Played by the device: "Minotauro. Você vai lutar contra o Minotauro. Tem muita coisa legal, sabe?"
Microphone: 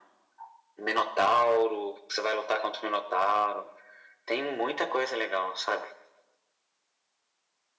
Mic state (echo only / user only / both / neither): echo only